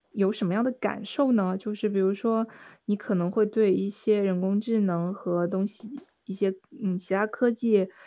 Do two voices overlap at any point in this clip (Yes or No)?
No